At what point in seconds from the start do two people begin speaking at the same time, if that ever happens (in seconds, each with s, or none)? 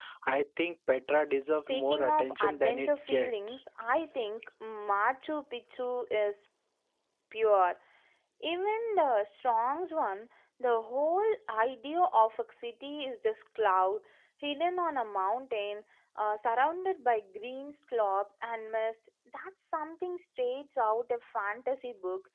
1.3 s